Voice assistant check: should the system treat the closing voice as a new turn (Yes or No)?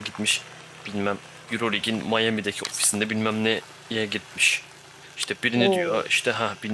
No